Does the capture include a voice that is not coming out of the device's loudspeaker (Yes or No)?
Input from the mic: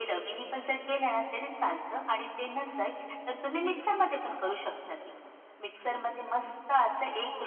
No